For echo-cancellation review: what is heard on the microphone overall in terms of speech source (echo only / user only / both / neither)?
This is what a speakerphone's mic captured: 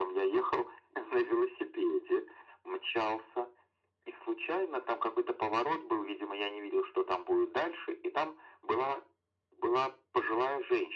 echo only